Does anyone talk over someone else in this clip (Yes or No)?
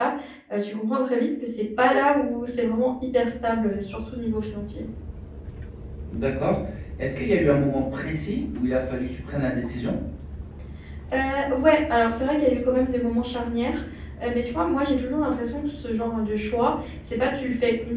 No